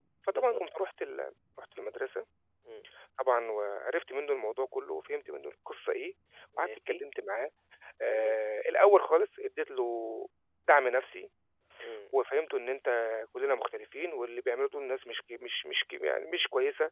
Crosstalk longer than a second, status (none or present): none